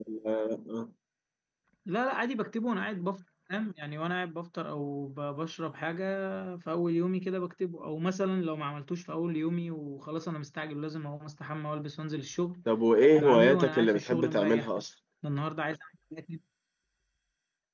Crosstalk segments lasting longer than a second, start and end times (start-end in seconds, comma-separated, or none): 13.2-14.8